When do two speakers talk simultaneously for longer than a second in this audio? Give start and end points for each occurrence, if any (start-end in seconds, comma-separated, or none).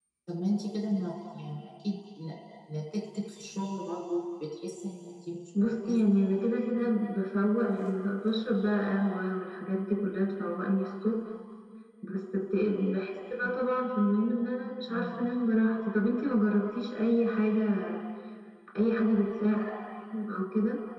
none